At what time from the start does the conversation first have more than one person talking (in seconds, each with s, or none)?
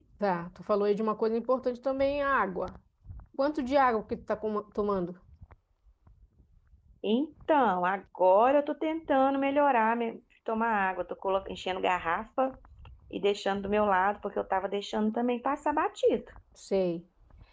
none